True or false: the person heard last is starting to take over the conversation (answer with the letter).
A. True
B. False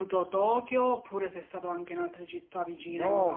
A